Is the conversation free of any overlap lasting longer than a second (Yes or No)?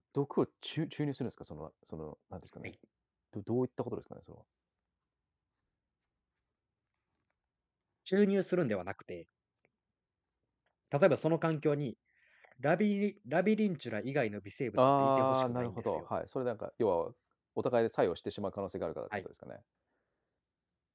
No